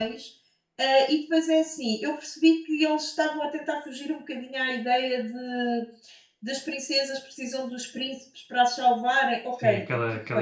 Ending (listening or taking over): taking over